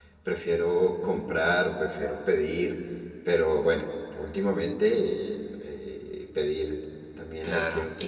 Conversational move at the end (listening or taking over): taking over